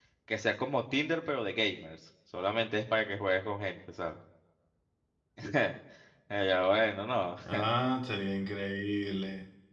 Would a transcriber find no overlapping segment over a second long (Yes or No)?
Yes